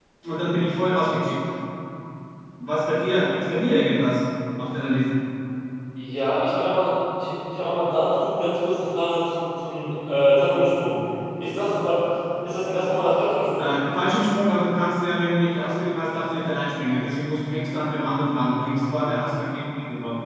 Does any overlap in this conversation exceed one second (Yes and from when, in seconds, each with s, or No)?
No